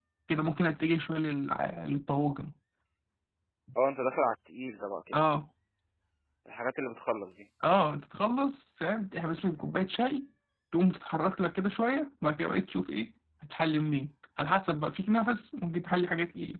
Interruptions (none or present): none